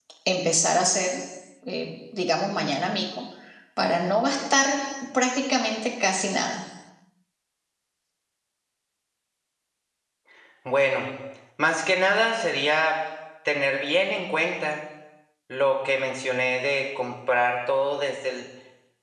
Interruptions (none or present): none